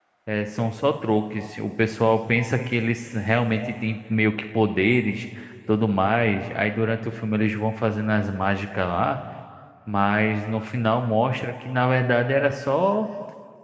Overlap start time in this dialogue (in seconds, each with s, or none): none